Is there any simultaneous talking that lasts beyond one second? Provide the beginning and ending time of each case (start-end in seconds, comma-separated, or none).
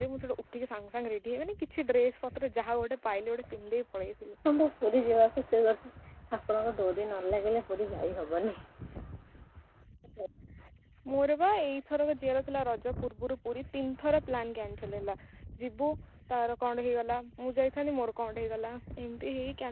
none